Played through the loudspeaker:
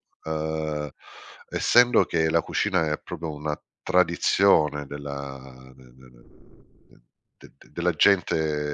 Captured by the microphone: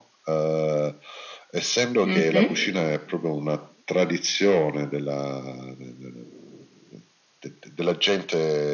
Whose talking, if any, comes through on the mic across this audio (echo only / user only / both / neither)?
both